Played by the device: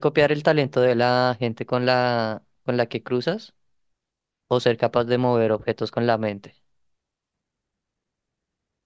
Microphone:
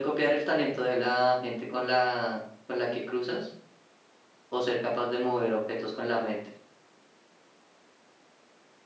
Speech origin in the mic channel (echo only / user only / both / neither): echo only